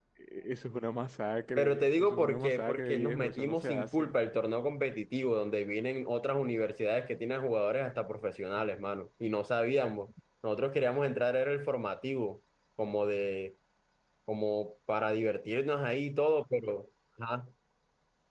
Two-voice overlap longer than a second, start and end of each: 1.6-4.1

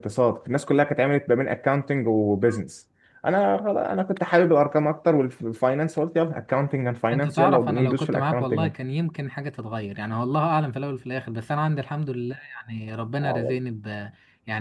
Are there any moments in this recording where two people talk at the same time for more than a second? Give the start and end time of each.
7.1-8.7

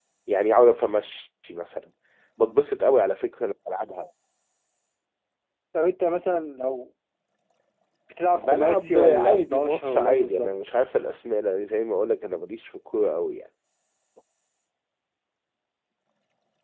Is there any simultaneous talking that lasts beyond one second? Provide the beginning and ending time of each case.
8.3-10.5

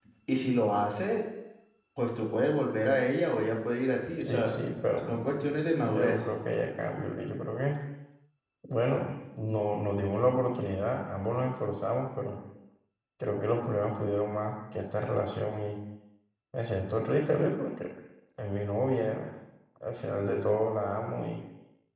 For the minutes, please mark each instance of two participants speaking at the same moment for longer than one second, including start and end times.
none

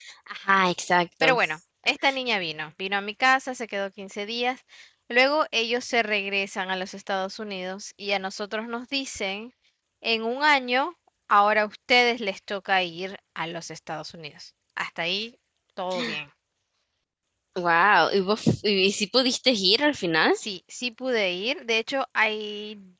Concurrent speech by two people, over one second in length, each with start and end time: none

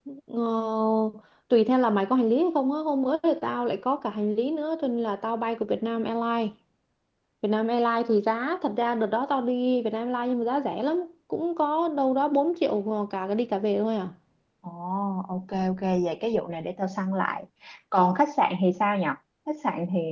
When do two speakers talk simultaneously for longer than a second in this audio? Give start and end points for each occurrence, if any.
none

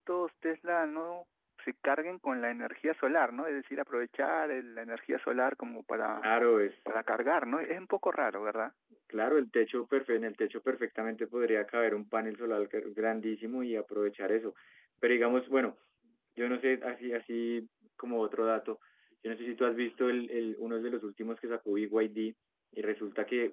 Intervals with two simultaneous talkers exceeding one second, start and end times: none

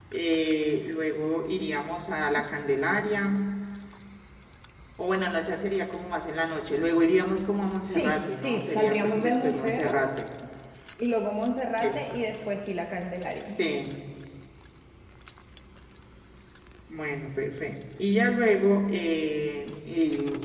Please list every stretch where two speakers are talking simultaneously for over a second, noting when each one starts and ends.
7.9-10.1

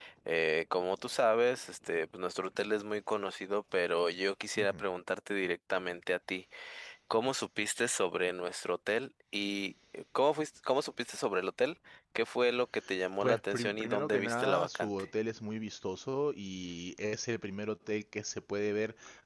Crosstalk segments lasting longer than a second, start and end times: 13.2-14.9

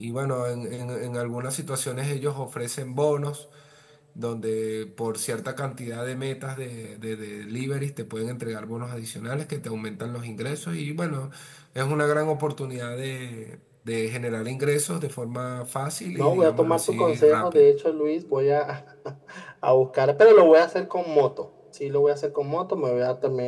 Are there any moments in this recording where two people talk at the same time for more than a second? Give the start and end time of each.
16.1-17.7

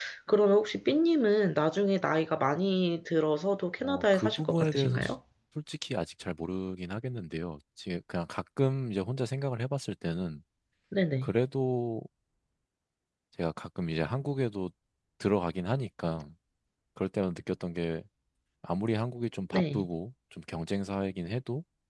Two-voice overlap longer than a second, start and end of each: 3.8-5.1

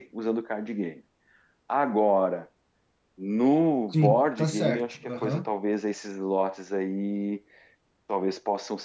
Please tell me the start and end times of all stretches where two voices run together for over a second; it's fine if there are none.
3.9-5.4

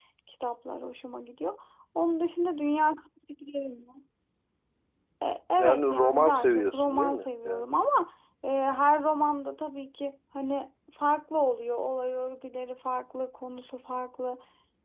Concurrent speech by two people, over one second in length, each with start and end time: 5.6-7.6

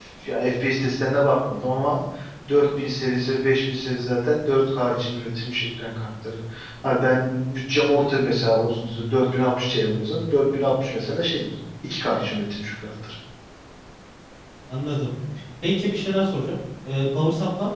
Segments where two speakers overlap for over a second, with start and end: none

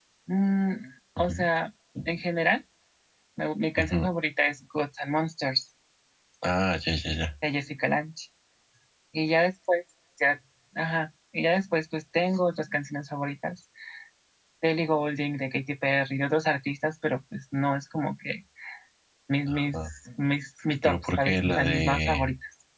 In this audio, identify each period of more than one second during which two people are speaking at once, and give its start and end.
20.8-22.3

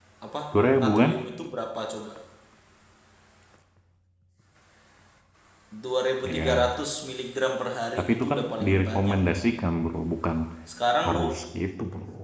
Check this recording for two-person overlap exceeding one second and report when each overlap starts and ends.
8.0-9.2

